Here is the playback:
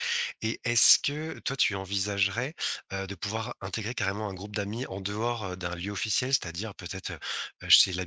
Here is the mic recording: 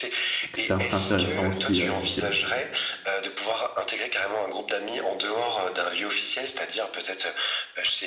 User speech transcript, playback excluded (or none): que c'est assez intéressant aussi, heu, cette ville.